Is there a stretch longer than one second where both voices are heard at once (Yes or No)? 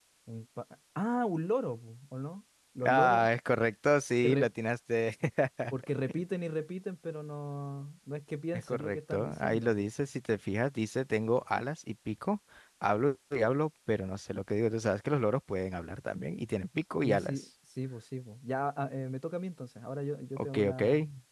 Yes